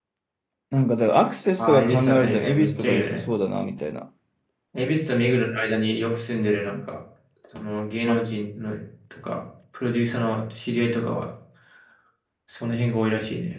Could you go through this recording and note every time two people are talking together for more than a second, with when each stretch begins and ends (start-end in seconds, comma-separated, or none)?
1.6-3.2